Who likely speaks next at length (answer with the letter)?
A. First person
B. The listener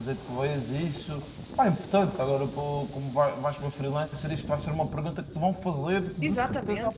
B